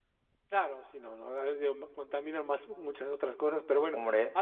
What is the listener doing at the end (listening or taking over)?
listening